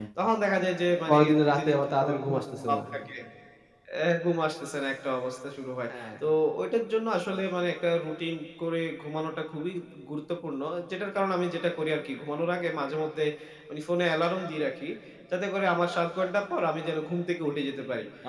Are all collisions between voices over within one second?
No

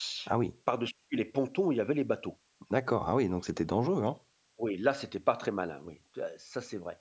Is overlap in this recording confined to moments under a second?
Yes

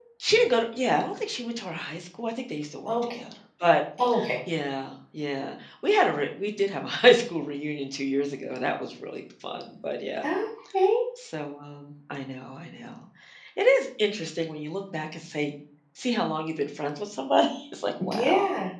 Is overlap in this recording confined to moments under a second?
Yes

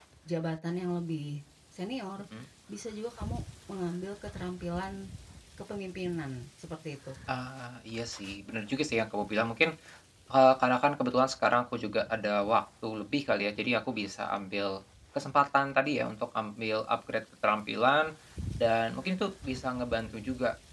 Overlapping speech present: No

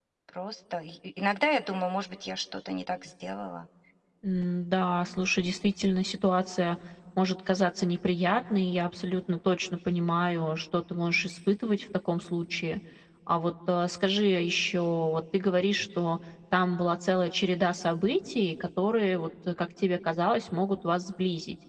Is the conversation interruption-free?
Yes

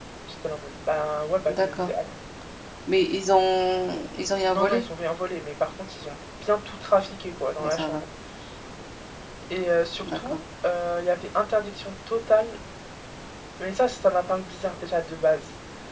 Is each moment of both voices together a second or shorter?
Yes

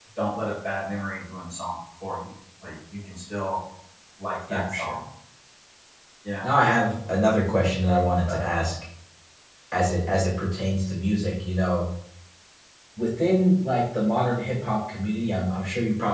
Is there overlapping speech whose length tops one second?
No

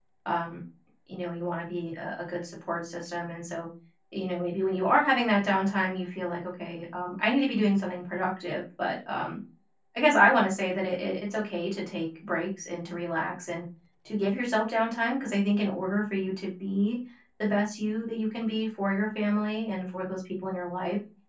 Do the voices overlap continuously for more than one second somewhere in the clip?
No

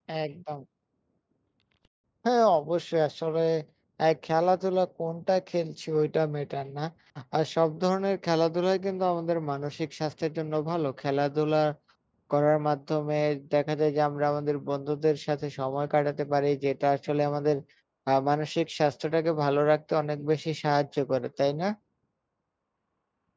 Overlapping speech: No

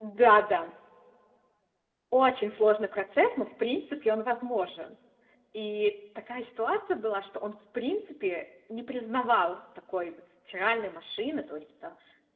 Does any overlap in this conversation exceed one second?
No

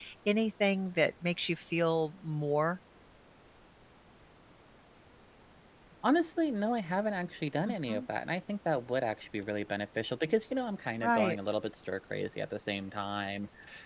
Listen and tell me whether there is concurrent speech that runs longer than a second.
No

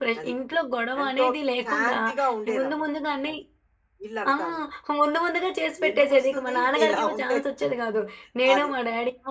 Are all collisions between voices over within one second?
No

